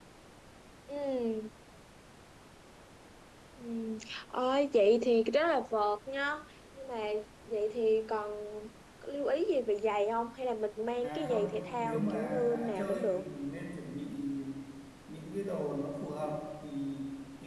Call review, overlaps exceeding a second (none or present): present